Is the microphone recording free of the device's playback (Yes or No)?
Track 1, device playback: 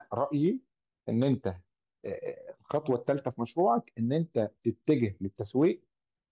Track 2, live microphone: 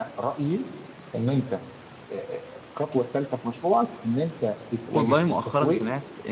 No